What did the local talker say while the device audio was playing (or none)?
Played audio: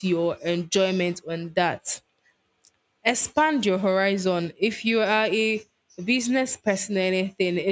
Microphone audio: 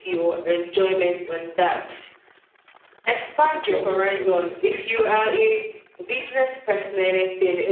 to be saying those things?